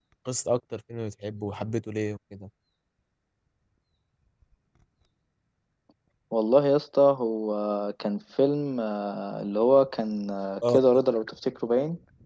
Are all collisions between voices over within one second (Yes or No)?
Yes